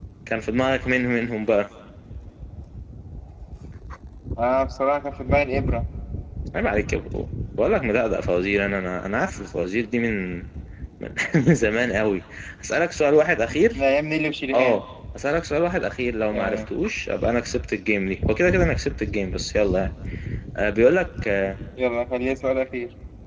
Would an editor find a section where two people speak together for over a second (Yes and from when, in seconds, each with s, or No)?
No